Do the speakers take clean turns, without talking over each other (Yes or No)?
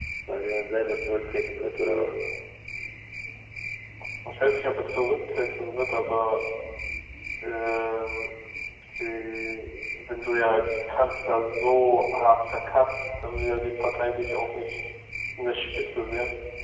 Yes